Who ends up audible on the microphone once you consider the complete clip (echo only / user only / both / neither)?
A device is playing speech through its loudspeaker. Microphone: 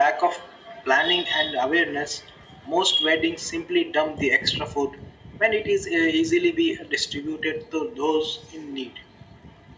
echo only